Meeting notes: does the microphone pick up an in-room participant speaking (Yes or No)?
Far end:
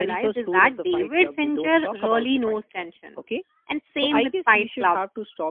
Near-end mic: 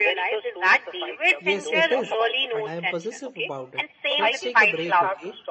Yes